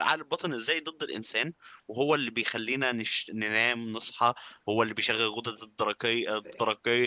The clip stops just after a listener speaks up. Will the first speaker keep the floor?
Yes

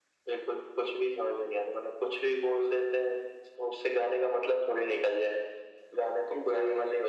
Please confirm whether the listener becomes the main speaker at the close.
No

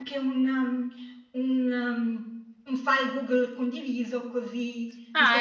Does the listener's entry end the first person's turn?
No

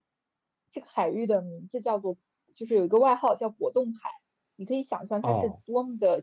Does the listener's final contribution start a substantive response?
No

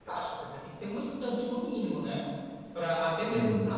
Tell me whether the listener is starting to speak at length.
No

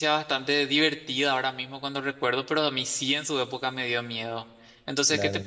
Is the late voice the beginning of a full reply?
No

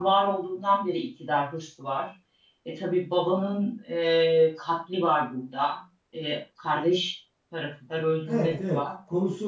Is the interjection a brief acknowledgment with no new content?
No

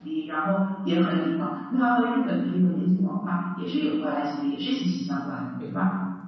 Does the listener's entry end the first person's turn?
Yes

